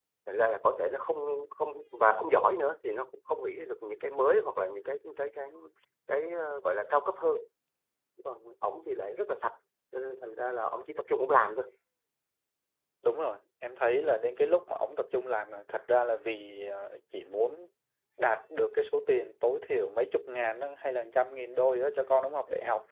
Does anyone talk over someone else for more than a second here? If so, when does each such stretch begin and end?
none

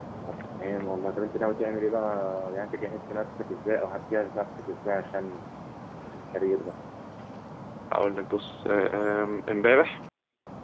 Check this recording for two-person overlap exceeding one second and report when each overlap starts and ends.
none

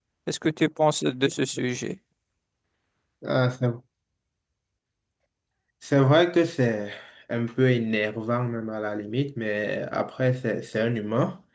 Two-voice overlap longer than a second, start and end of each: none

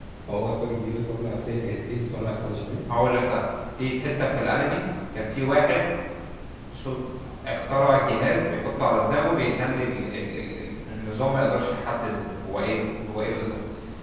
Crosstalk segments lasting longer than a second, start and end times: none

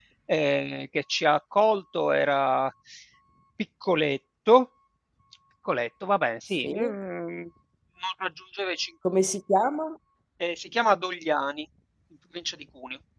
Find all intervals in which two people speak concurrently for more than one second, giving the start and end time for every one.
none

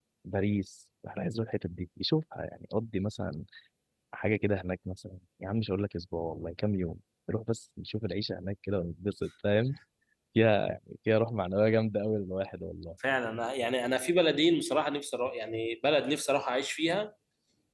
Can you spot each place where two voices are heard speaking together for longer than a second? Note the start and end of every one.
none

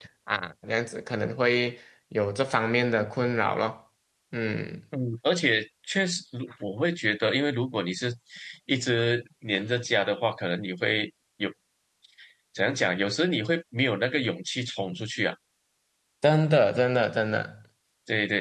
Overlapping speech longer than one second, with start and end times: none

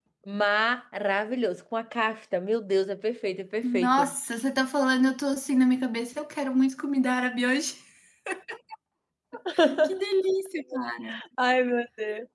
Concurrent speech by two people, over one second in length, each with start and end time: none

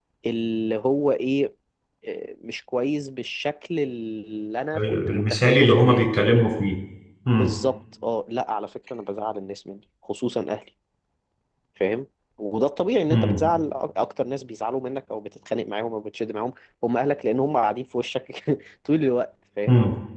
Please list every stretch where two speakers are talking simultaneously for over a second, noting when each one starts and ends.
4.8-6.0

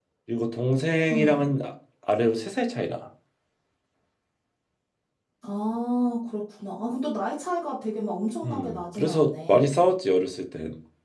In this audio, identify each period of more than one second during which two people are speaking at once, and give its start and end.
8.4-9.7

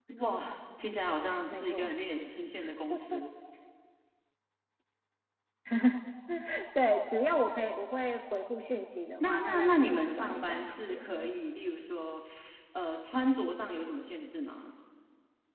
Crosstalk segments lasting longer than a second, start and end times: 9.2-11.3

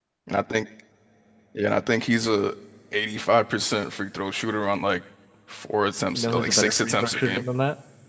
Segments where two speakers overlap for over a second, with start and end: 6.1-7.4

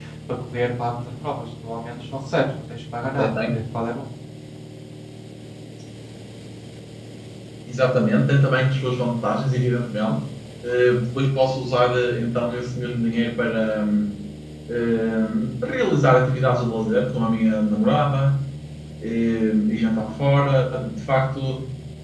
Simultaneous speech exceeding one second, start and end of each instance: none

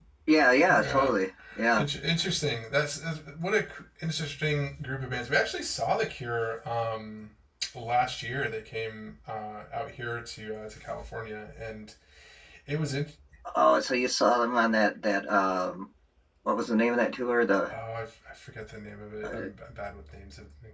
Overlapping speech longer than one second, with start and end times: none

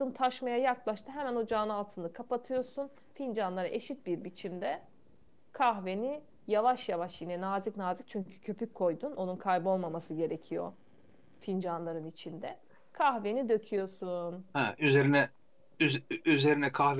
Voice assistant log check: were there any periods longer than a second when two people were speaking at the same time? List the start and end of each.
none

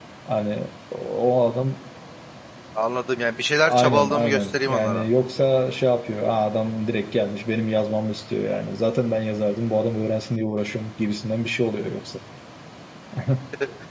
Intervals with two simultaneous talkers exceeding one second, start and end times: 3.7-5.1

